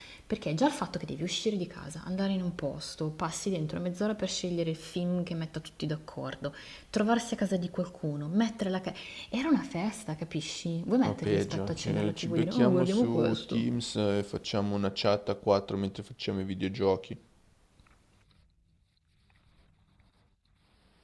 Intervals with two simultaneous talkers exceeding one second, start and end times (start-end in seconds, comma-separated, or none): 11.0-13.7